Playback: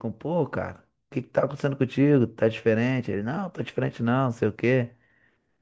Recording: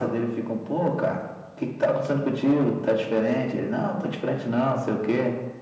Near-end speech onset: none

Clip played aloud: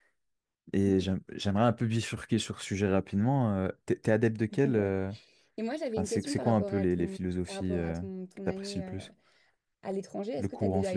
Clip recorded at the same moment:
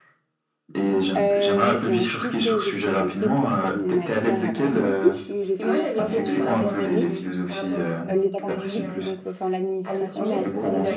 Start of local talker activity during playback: 1.2 s

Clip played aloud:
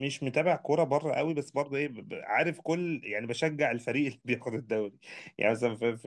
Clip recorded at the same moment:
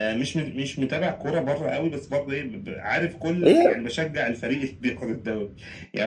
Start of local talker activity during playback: 3.5 s

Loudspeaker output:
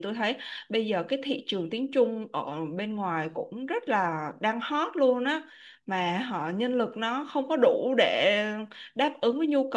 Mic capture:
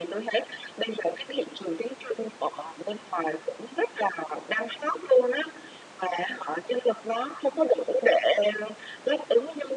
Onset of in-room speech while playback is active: none

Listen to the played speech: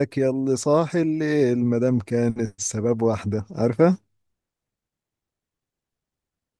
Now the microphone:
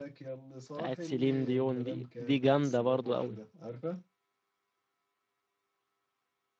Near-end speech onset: 0.7 s

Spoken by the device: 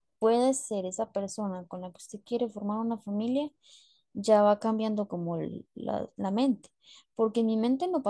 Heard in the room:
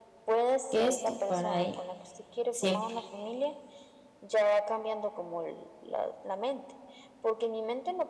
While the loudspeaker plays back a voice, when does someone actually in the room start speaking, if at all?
0.7 s

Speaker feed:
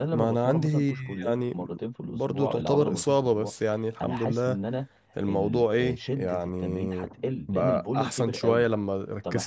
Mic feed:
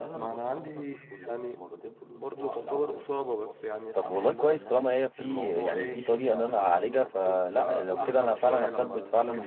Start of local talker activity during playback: 3.9 s

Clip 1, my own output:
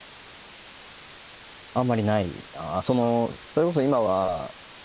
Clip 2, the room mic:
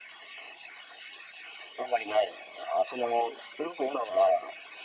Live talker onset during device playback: none

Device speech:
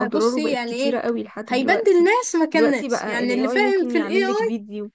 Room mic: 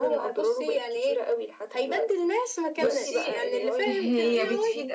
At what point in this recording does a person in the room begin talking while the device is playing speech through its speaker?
2.8 s

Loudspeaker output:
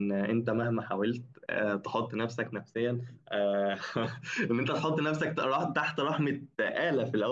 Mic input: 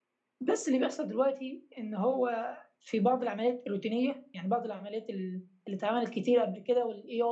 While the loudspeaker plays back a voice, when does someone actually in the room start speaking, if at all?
0.4 s

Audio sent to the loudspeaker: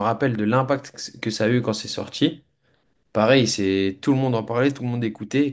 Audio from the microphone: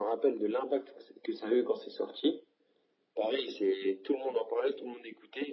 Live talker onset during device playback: none

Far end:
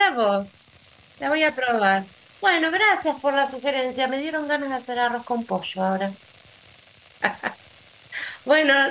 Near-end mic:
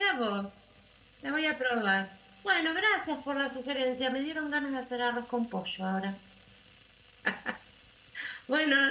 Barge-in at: none

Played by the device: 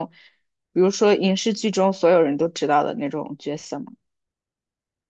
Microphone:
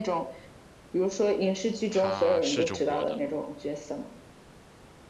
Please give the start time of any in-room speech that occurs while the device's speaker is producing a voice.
1.9 s

